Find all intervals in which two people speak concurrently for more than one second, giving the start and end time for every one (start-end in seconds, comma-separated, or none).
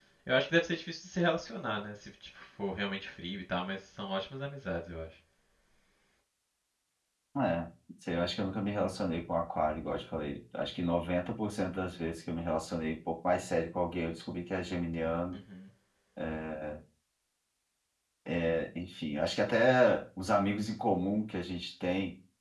none